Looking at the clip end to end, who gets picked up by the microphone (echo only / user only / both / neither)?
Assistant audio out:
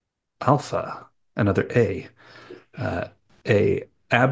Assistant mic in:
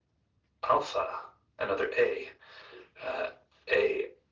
echo only